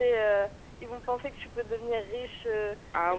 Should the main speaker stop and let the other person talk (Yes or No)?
Yes